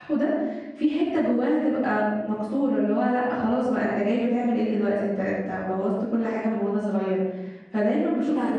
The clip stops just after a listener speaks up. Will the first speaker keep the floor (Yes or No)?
Yes